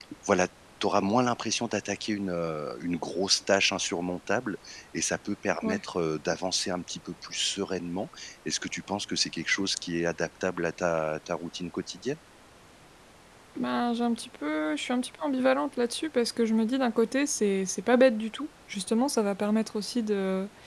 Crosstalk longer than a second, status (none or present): none